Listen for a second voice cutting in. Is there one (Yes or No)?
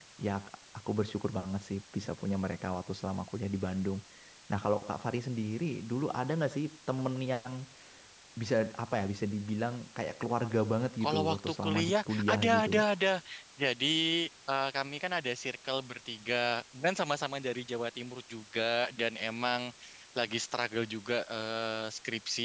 Yes